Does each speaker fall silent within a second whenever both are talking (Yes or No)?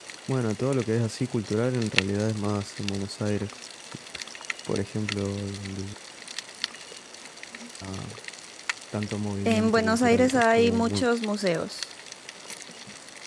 No